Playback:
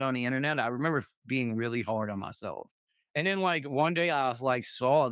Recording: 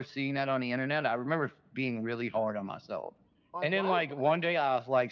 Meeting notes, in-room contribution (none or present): present